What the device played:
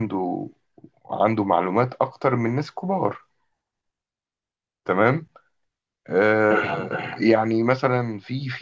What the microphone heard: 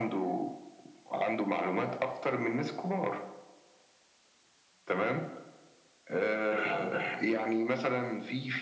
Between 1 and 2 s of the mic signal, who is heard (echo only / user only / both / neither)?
echo only